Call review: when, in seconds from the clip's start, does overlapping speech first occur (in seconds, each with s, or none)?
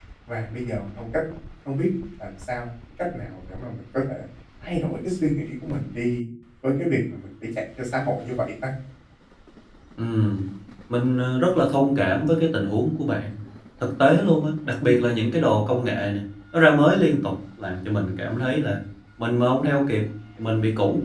none